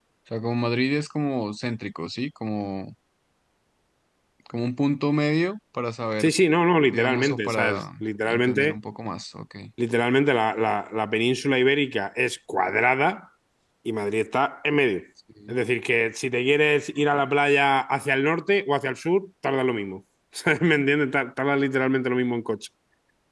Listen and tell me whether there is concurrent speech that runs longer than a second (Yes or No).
Yes